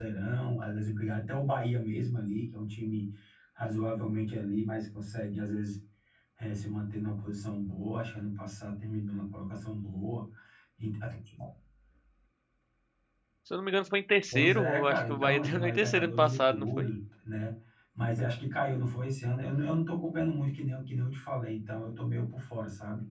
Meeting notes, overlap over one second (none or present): present